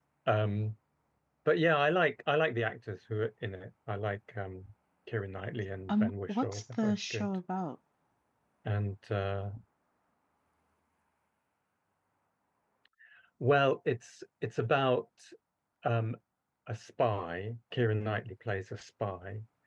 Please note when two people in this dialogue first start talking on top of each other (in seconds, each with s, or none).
5.9 s